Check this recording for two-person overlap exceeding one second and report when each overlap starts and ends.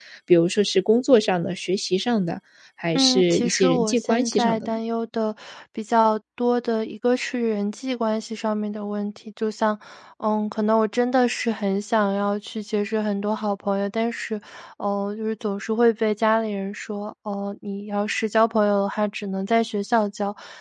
2.9-4.8

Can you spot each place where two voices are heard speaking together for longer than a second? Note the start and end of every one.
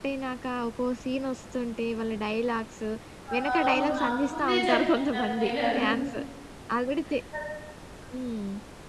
3.5-5.9

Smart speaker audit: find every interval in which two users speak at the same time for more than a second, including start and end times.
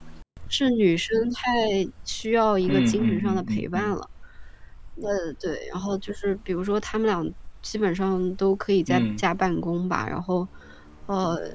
2.7-3.9

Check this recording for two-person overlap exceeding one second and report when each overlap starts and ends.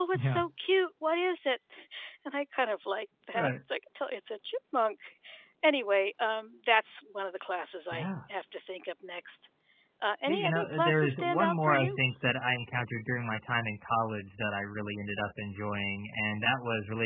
10.3-12.0

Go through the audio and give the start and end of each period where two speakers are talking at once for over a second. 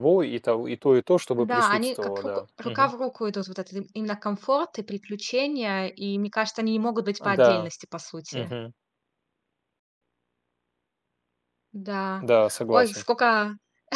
1.4-2.9

